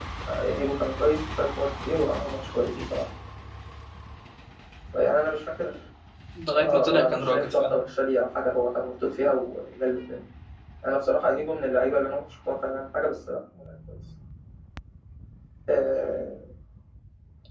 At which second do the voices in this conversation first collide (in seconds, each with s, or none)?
6.5 s